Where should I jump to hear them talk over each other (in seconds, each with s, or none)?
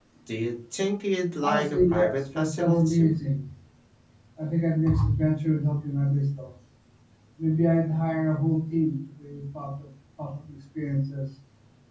1.4 s